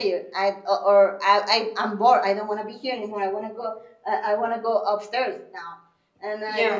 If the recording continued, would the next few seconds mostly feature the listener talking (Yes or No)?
No